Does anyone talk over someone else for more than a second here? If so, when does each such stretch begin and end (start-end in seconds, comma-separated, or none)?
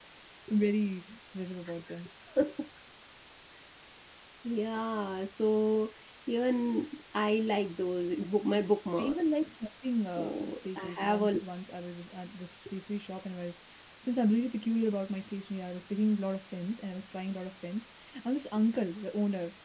10.1-11.3